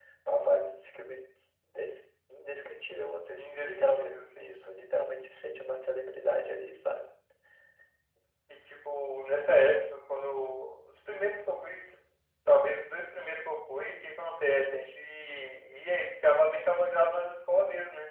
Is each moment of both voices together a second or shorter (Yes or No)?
No